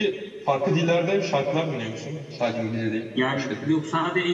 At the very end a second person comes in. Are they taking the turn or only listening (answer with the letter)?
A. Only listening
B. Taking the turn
B